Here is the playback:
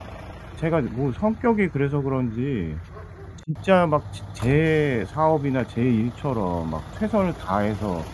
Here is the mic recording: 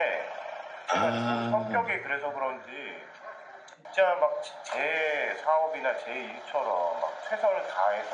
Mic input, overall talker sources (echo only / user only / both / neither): both